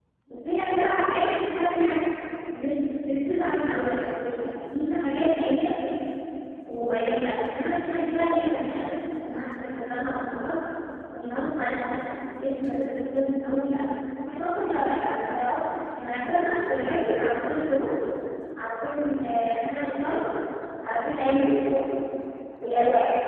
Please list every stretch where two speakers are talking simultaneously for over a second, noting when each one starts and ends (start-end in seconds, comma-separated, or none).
none